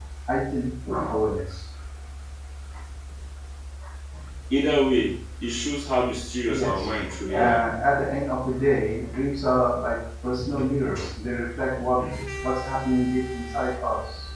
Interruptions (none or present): present